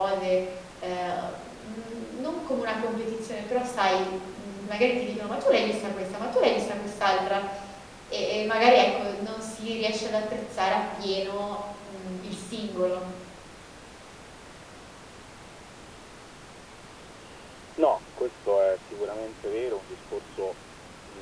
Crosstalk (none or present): none